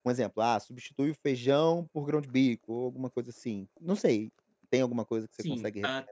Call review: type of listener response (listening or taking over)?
taking over